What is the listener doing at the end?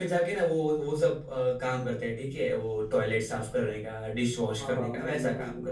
taking over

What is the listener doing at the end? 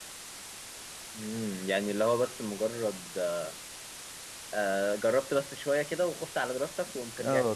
taking over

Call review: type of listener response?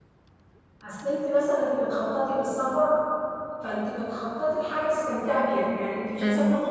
listening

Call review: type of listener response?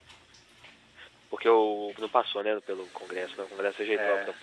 taking over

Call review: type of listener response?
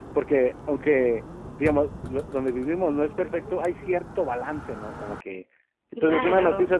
listening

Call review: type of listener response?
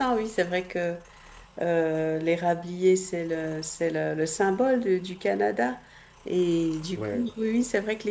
listening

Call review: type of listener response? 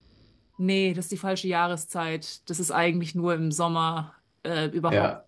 listening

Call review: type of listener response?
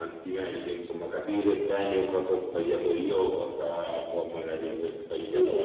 taking over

